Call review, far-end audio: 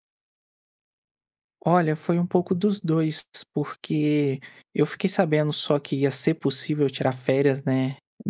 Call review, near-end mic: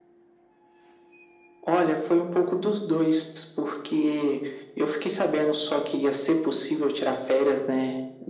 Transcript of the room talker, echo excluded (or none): none